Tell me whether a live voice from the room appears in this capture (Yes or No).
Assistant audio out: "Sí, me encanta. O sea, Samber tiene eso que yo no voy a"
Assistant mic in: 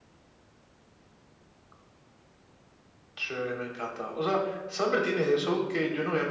No